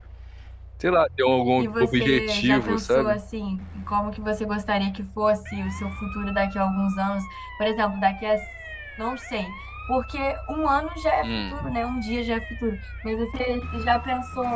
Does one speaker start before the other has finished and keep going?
Yes, from 1.6 s

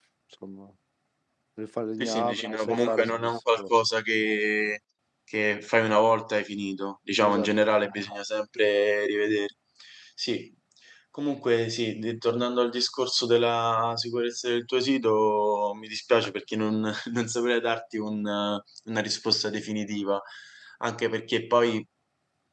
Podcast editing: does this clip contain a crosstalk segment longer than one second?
Yes, from 2.0 s

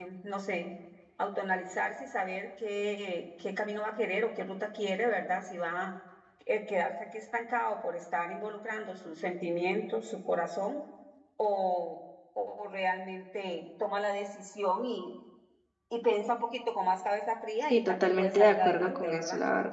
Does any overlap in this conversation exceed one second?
Yes, from 17.7 s

